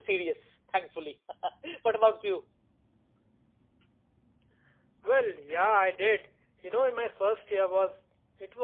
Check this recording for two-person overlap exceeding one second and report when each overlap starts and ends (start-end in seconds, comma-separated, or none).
none